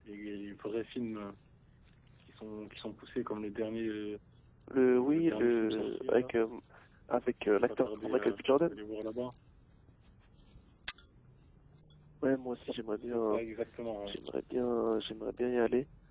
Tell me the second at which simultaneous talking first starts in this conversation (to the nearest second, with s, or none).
5 s